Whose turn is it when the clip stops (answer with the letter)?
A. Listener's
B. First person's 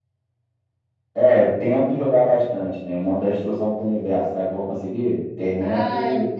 A